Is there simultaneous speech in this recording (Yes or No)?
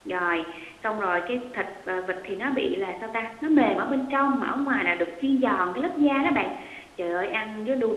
No